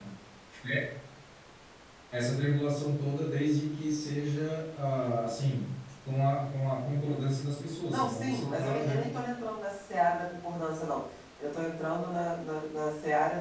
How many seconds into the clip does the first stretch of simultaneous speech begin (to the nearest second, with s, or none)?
8 s